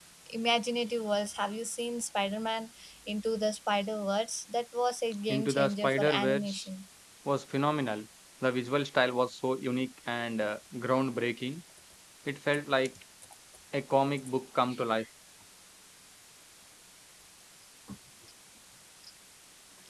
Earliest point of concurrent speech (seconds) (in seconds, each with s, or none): 5.3 s